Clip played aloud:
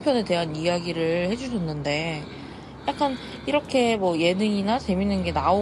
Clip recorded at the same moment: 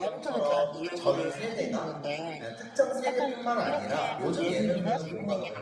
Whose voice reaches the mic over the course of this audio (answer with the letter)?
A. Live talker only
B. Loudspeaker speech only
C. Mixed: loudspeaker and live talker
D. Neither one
C